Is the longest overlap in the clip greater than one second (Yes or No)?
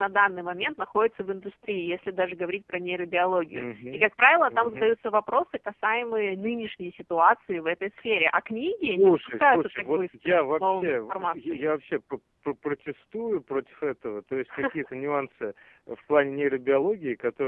Yes